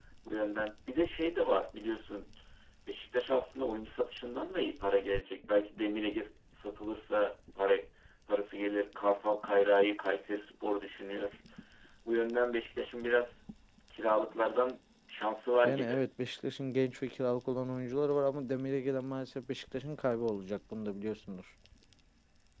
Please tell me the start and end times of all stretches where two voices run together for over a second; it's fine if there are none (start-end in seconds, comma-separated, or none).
none